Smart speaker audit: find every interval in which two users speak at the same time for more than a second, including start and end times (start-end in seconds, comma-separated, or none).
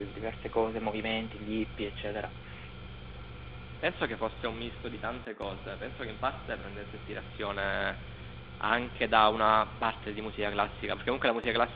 none